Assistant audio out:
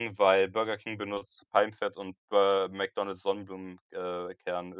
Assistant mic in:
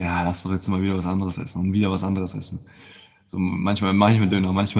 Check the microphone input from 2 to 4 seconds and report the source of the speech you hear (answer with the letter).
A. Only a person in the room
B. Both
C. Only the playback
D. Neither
A